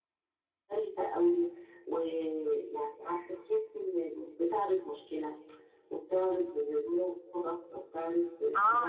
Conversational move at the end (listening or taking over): taking over